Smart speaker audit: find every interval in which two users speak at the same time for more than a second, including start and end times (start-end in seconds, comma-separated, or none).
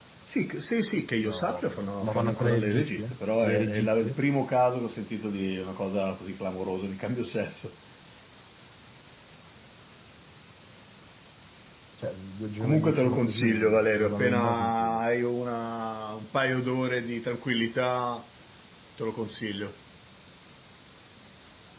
1.2-4.2, 12.6-15.0